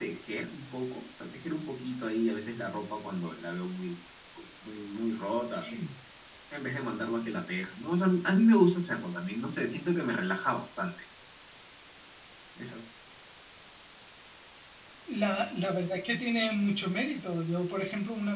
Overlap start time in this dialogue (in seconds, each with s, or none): none